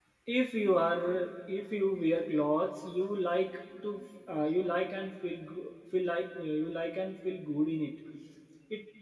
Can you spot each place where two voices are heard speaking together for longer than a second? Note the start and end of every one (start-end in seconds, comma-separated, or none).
none